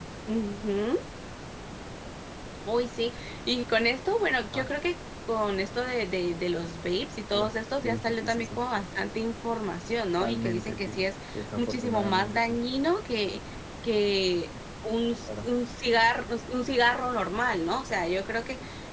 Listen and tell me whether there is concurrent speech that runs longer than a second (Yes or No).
Yes